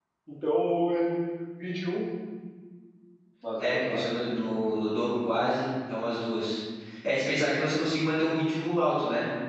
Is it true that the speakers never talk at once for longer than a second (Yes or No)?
Yes